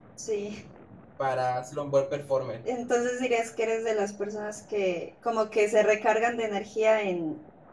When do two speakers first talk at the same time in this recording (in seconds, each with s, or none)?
none